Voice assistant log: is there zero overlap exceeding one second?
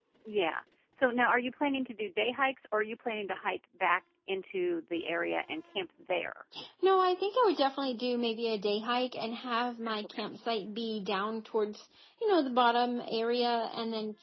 Yes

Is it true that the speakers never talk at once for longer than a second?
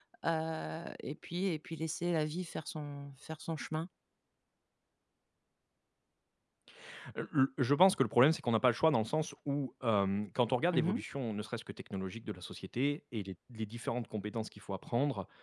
Yes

